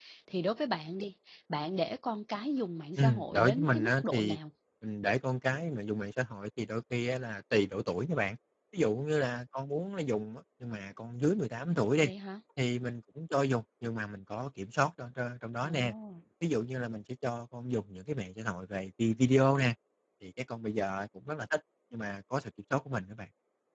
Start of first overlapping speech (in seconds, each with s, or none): 3.0 s